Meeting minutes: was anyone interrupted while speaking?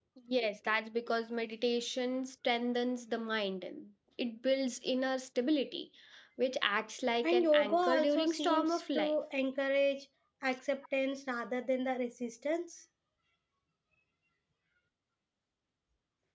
Yes, from 7.2 s

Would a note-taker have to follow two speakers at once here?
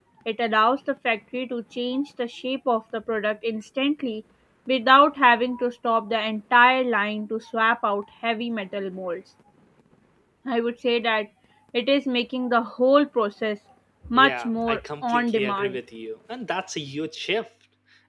Yes, from 14.2 s

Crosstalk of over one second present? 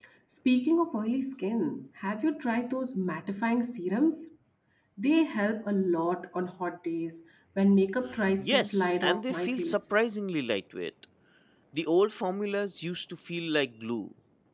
Yes, from 8.4 s

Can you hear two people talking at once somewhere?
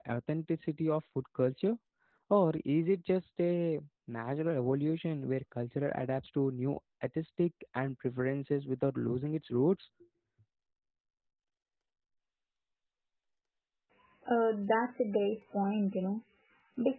No

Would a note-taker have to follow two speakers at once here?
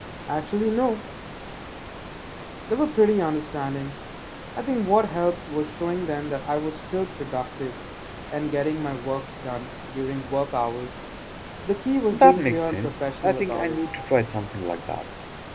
Yes, from 12.1 s

